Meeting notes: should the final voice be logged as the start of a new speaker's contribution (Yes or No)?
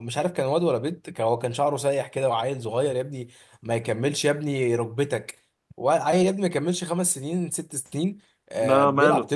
No